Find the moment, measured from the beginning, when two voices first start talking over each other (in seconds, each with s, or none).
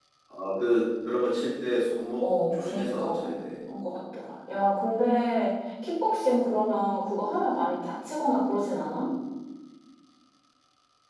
2.2 s